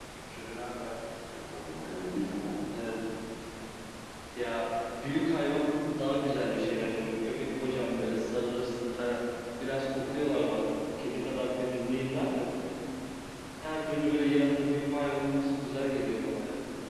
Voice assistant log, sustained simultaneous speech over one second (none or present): none